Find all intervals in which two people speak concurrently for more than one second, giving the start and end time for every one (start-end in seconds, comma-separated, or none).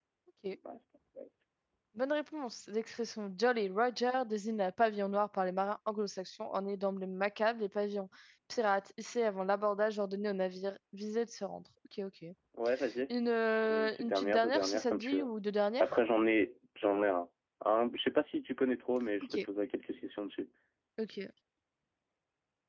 13.7-15.3